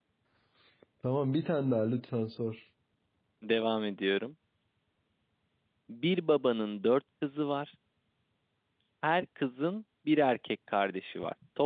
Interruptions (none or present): none